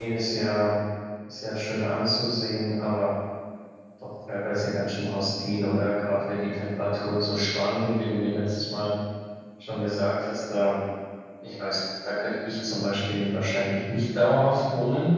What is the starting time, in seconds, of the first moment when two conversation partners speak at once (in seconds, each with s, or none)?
none